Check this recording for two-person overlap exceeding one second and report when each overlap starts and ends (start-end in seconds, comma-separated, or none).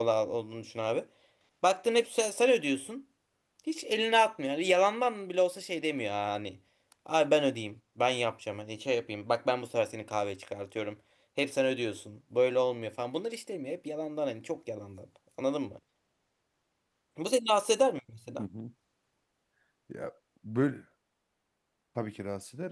none